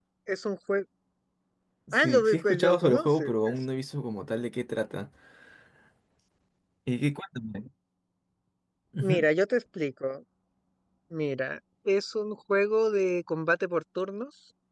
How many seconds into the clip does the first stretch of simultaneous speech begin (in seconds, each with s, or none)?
1.9 s